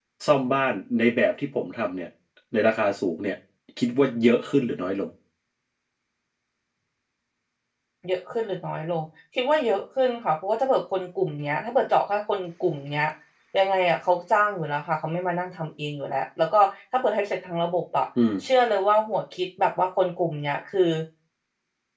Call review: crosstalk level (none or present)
none